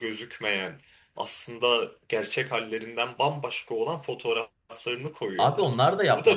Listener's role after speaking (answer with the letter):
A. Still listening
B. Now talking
B